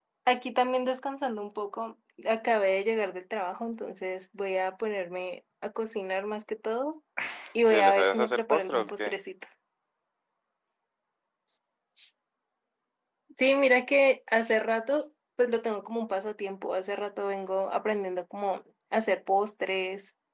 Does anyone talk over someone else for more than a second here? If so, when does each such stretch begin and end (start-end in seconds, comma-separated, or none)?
7.7-9.1